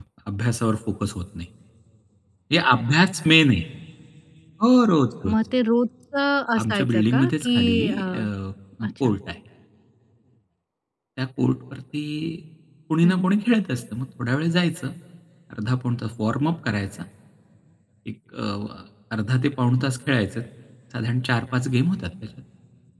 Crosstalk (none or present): present